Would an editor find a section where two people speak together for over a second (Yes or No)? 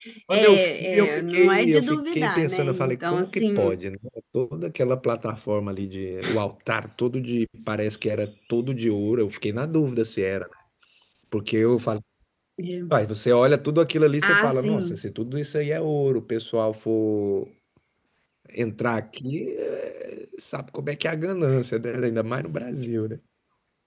Yes